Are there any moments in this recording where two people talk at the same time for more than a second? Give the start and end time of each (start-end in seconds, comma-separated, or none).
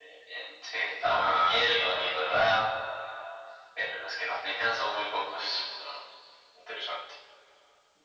1.0-2.3